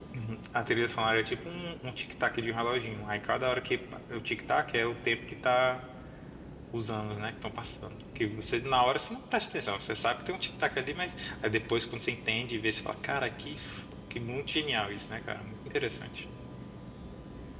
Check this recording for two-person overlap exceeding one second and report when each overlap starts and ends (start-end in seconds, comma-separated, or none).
none